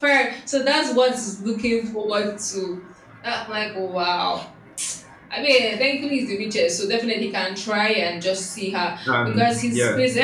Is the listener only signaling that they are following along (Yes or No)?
Yes